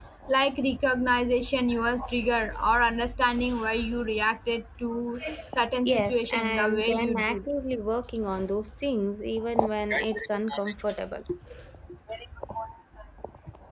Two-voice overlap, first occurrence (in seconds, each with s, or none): 5.8 s